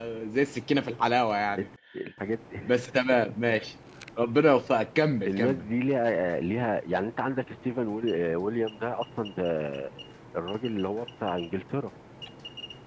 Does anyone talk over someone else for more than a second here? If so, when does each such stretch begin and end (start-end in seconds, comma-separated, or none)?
none